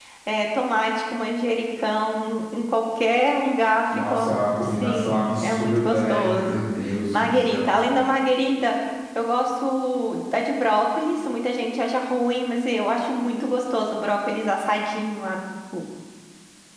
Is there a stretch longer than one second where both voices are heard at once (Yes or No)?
Yes